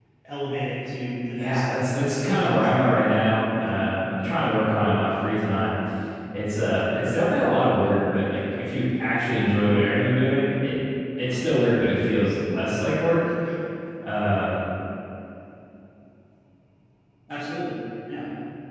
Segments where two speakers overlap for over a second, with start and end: 1.4-3.0

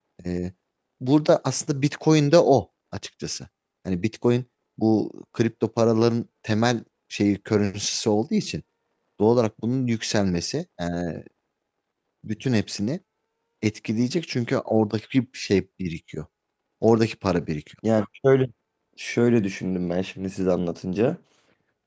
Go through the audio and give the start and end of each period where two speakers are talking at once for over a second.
none

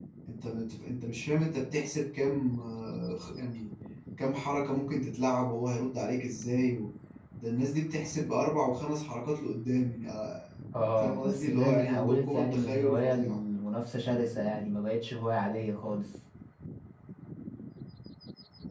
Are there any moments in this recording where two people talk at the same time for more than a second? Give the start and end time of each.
11.0-13.4

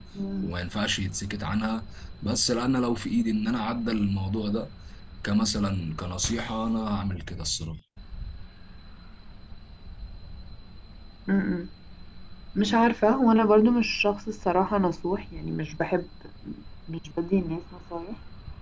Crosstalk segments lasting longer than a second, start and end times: none

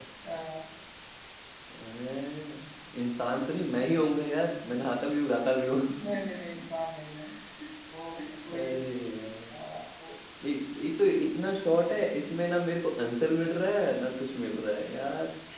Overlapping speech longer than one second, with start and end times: none

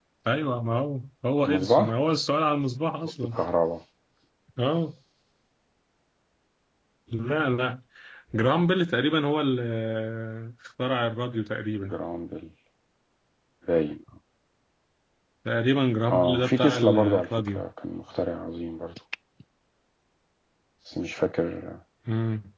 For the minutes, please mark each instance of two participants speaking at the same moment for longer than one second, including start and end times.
16.1-17.6

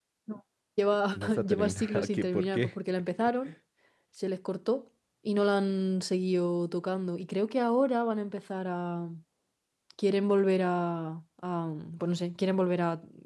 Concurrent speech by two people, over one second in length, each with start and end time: 1.1-2.7

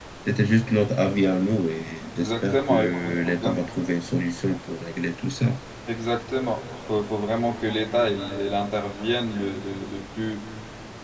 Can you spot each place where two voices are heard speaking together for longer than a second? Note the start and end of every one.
2.2-3.6

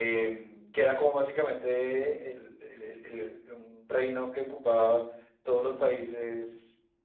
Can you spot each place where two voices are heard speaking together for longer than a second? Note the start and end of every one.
none

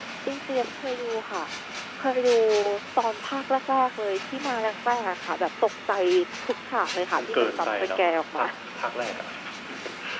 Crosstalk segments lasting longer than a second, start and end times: 7.2-8.4

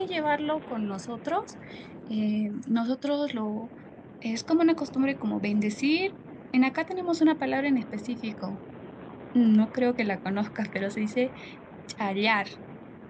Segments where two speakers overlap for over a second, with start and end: none

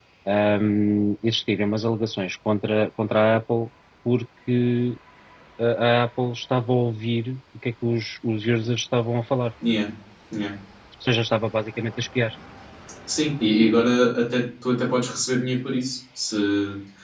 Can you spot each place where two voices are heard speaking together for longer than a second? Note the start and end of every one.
none

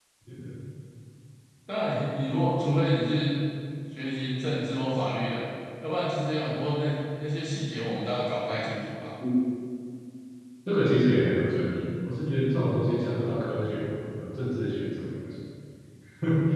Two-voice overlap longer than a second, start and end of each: none

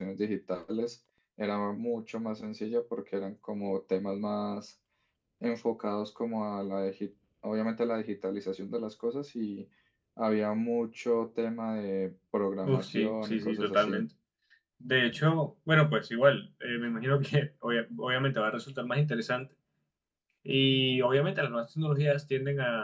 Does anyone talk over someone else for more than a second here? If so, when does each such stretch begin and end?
12.6-14.0

